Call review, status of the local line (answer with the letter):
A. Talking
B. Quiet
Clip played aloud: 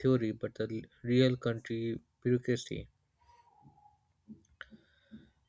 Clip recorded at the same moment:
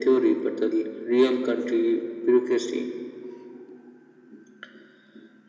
B